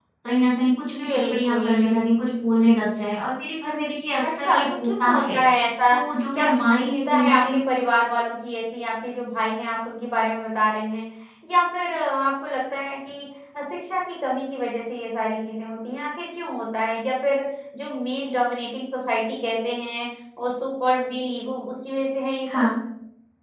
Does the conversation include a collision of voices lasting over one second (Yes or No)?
Yes